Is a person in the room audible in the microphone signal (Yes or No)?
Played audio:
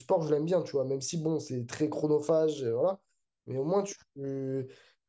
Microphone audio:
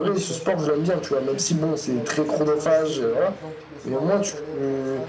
Yes